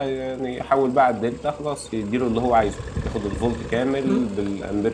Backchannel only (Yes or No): Yes